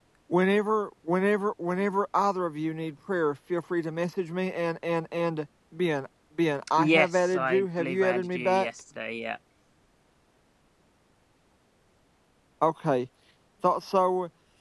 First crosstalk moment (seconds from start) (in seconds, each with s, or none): 6.8 s